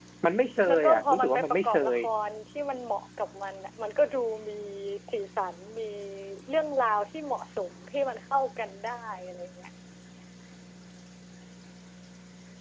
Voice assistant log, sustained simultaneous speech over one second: present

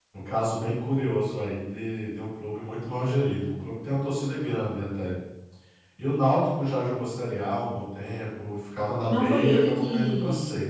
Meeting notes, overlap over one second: present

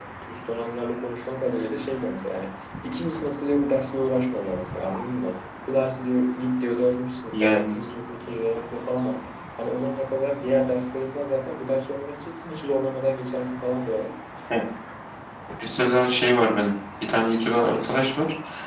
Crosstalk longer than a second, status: none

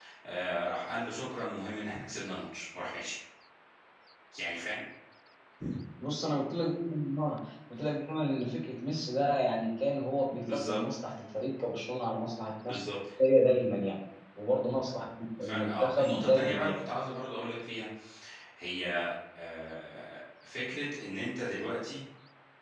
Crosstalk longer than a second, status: present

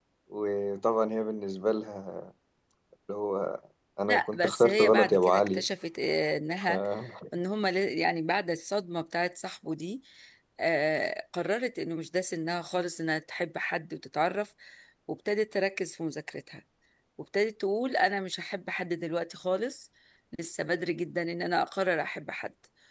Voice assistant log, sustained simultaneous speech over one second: present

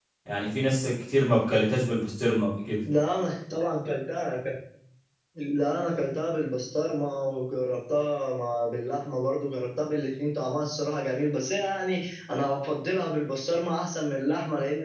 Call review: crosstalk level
none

